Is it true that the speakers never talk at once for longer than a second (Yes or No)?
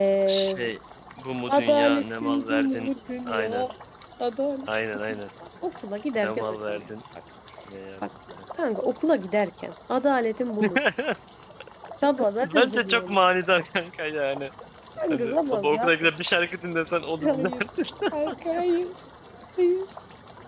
No